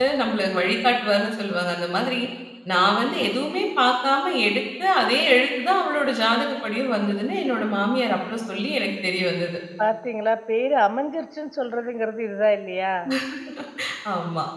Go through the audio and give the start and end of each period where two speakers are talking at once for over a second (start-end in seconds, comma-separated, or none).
none